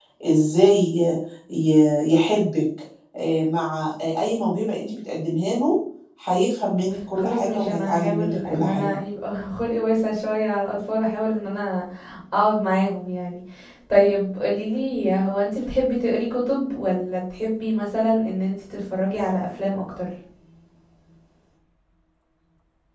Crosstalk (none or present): present